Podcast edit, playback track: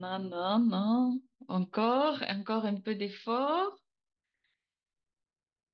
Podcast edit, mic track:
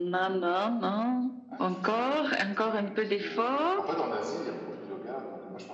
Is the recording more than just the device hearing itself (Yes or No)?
Yes